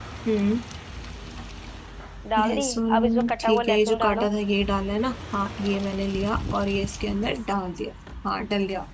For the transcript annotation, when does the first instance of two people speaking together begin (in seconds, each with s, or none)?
2.4 s